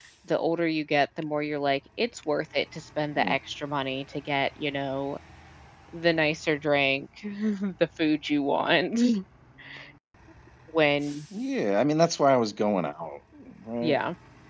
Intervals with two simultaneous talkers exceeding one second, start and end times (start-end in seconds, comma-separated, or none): none